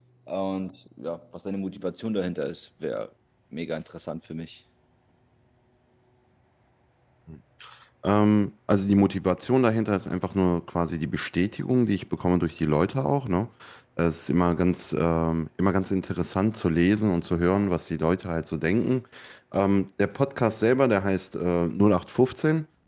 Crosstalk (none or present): none